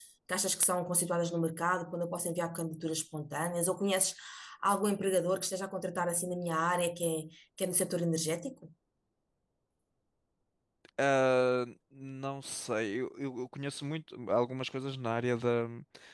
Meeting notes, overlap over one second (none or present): none